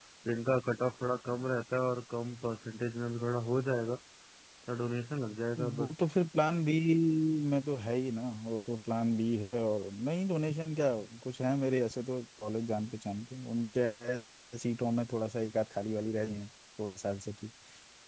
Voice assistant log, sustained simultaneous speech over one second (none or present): none